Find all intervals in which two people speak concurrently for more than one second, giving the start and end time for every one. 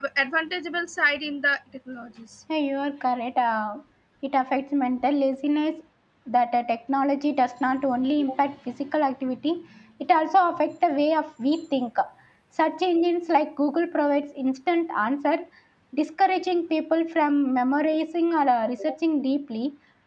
none

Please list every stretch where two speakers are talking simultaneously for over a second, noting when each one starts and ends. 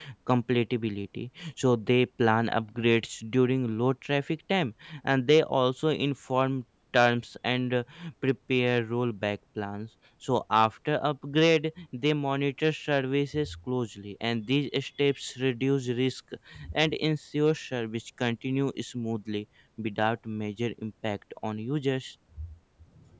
none

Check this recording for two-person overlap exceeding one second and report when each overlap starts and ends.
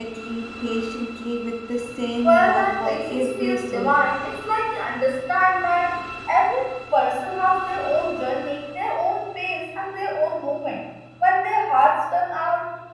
2.2-3.9

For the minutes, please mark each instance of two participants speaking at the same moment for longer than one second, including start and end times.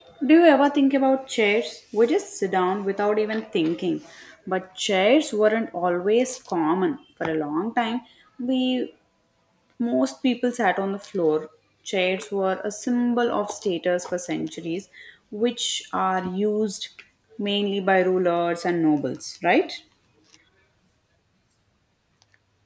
none

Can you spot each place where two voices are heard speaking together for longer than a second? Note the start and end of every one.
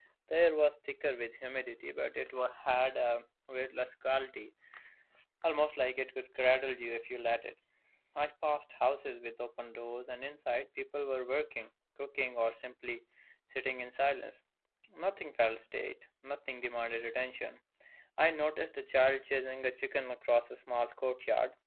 none

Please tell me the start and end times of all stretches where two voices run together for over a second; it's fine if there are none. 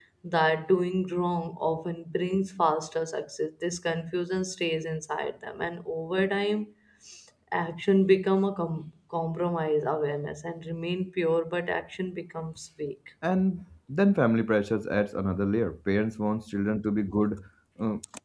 none

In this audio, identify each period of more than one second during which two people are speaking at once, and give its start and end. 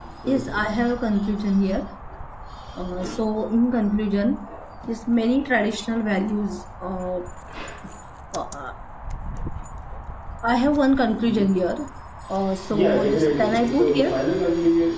12.7-14.3

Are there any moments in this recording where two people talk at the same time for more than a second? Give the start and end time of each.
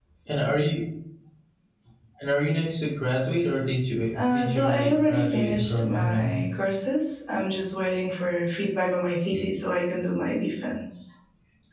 4.3-6.3

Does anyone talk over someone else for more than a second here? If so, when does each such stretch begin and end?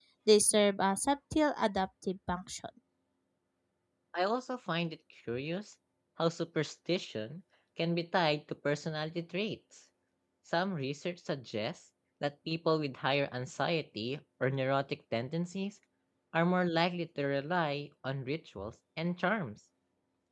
none

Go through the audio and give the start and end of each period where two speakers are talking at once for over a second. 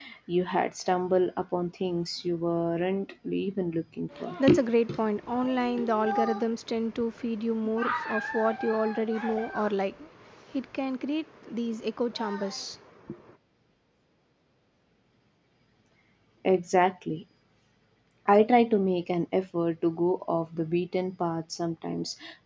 none

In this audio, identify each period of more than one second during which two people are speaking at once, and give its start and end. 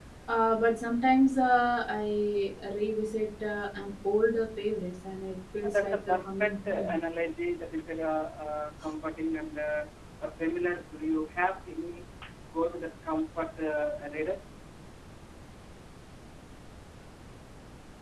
5.7-6.9

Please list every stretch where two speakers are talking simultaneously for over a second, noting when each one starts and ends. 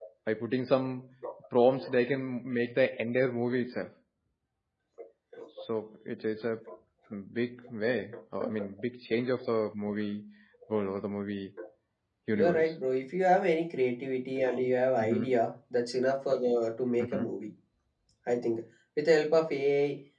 none

